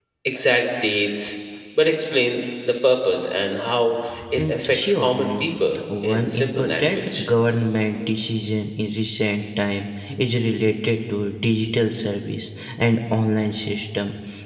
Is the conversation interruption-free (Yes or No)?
No